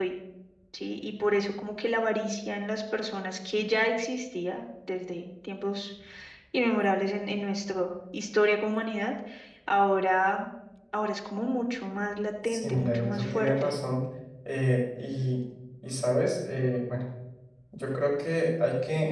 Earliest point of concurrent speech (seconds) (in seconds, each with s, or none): 12.5 s